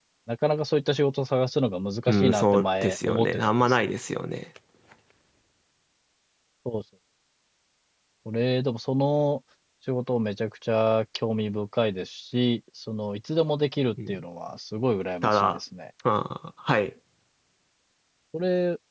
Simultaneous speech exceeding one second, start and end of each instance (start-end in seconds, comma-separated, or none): 2.1-3.8